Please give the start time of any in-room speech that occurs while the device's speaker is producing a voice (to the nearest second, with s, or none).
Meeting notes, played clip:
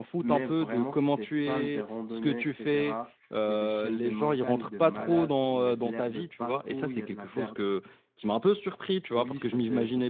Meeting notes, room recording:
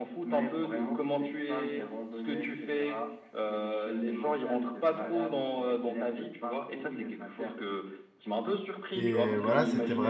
9 s